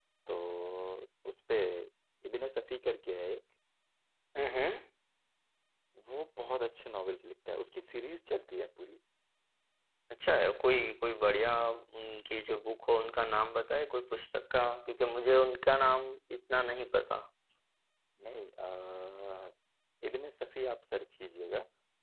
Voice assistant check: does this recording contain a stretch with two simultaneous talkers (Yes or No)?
No